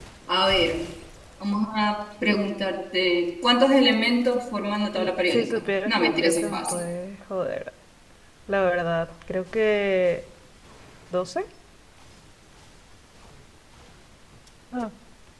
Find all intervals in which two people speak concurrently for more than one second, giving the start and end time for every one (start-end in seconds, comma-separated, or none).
5.0-6.8